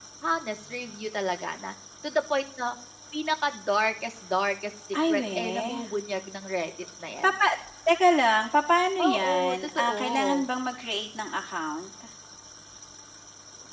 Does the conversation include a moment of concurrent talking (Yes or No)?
Yes